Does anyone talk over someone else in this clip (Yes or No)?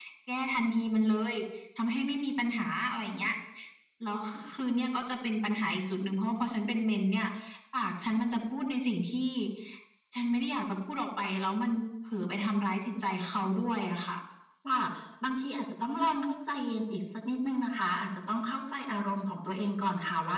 No